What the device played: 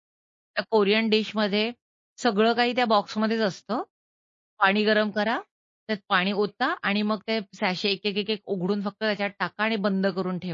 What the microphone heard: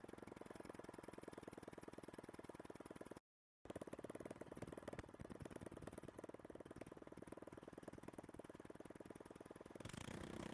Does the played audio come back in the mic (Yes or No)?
No